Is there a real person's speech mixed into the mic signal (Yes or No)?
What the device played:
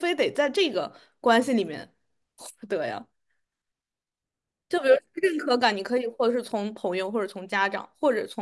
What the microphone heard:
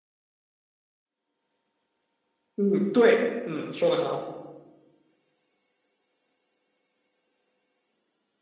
Yes